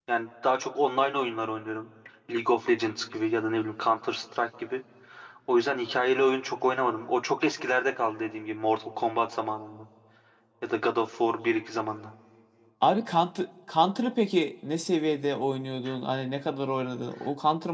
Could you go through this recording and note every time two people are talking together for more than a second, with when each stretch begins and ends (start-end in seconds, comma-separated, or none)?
none